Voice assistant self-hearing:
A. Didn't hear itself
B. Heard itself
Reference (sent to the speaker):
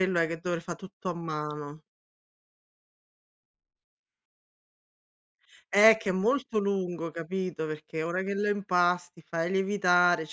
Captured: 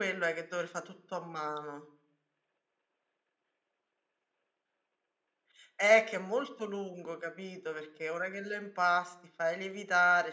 B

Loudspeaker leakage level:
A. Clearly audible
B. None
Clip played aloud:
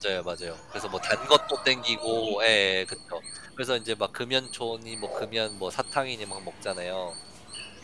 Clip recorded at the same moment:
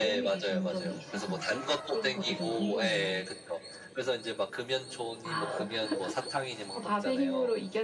A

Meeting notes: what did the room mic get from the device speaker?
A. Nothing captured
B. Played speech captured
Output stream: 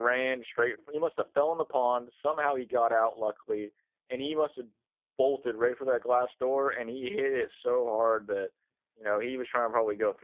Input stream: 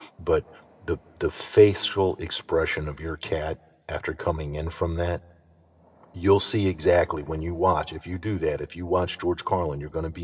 A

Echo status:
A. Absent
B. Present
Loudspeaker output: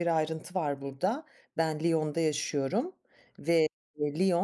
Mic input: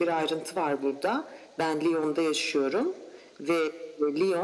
B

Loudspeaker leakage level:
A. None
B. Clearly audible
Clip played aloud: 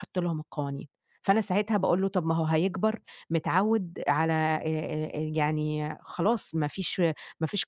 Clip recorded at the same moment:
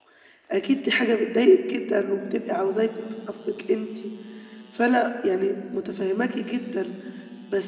A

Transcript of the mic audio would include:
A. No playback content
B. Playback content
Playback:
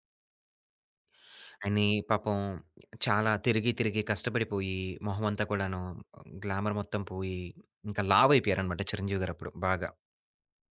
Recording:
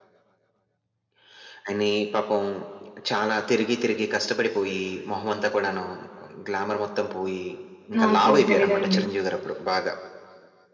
B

